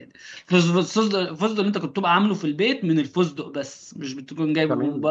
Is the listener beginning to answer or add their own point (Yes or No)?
Yes